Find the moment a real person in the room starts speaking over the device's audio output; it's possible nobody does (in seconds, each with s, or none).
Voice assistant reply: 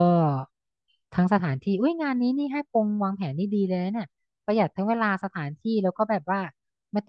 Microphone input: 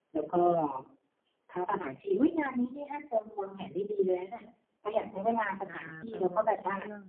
5.4 s